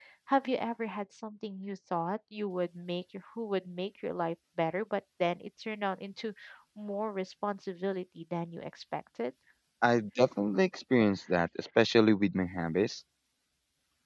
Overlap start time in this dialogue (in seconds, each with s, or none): none